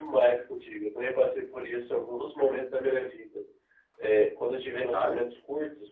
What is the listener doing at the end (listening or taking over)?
listening